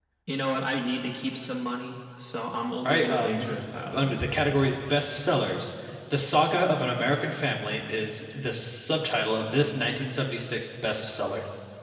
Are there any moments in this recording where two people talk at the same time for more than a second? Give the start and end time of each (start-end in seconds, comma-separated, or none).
2.8-4.2